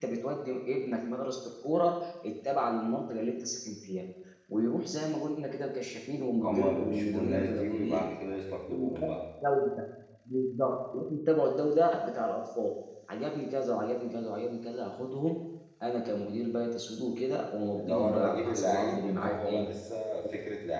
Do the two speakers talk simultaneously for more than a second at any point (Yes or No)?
Yes